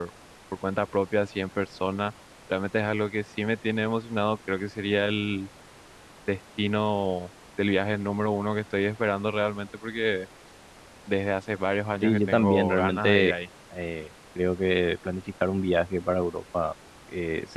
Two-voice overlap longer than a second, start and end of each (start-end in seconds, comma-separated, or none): 12.0-13.3